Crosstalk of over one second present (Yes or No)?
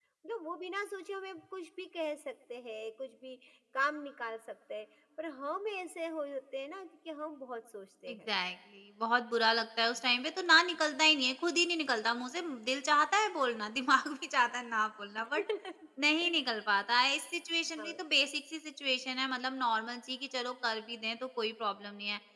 No